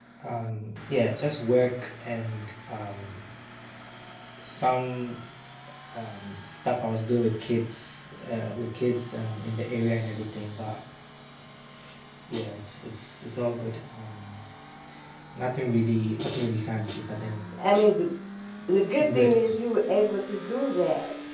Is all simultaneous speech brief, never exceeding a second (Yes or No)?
Yes